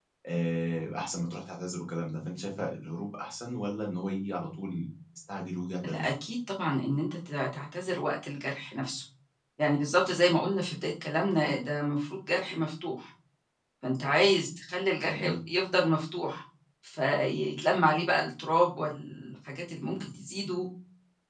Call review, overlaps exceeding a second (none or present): none